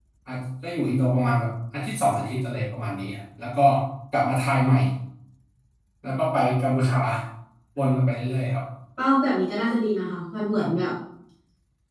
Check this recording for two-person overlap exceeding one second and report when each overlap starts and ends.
none

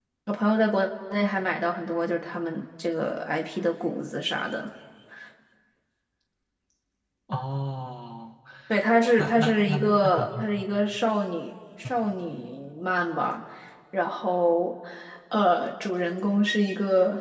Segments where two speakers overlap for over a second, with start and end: 9.2-10.5

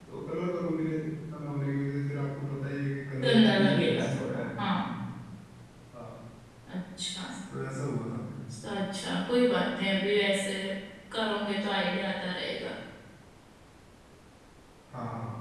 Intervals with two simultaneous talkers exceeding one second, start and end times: 3.2-4.9

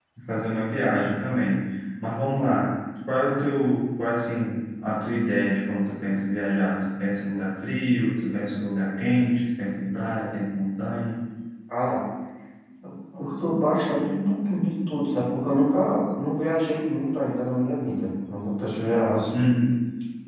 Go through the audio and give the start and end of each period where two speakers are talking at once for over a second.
none

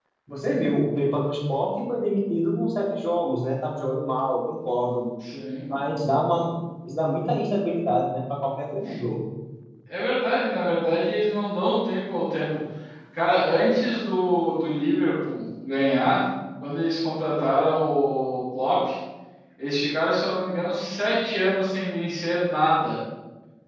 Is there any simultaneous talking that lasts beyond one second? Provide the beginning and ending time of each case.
none

